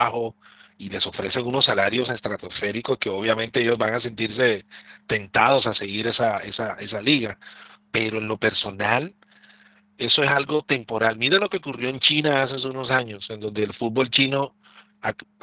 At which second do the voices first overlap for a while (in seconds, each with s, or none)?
none